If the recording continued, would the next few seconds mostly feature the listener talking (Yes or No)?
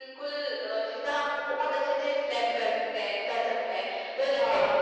No